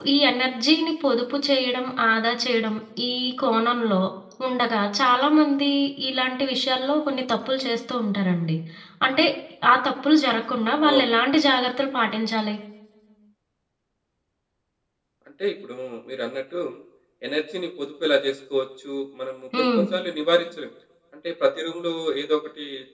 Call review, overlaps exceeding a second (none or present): none